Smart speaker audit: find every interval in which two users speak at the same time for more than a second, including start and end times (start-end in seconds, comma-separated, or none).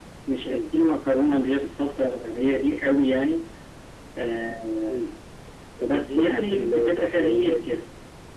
5.9-7.7